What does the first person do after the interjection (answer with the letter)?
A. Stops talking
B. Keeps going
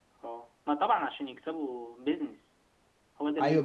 A